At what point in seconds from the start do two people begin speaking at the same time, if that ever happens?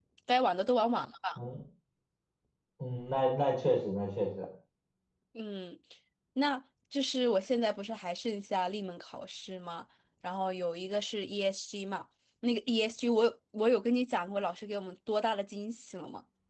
none

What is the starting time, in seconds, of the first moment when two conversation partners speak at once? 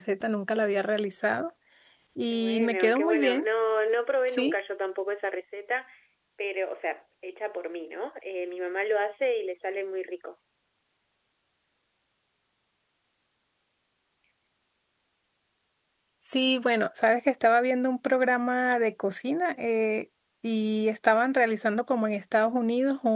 2 s

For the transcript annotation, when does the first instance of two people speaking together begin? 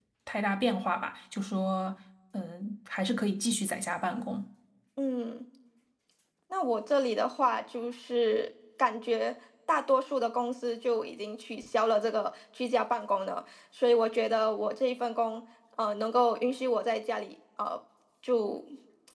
none

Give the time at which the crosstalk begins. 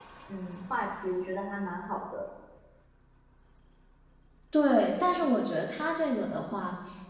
none

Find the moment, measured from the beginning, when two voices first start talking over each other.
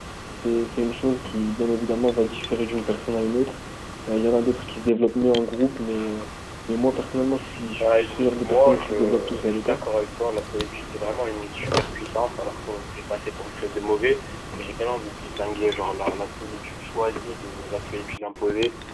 8 s

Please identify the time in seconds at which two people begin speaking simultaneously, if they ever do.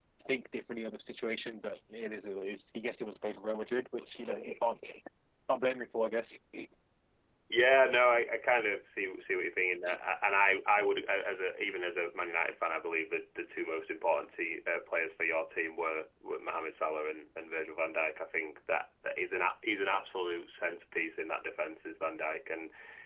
none

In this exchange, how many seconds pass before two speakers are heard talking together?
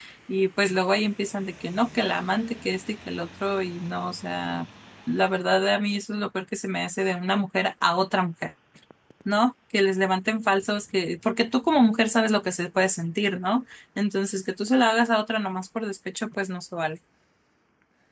none

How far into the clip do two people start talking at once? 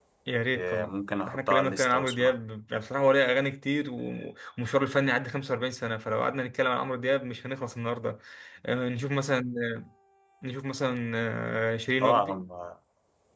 1 s

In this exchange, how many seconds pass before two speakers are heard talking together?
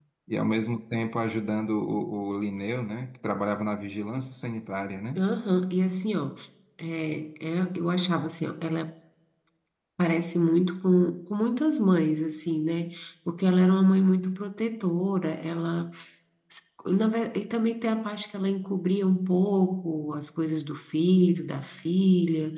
none

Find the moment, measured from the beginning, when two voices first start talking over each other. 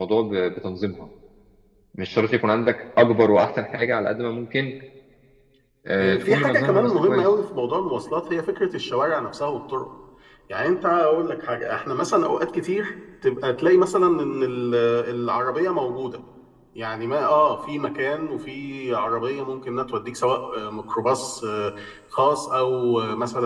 6 s

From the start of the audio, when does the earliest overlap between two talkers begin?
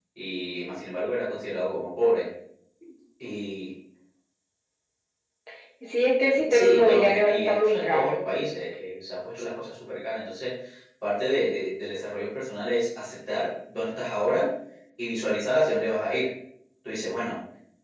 7 s

